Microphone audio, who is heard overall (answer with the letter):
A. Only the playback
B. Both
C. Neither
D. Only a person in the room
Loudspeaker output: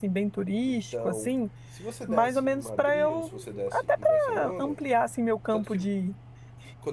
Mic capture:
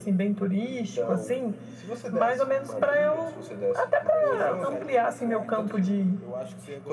B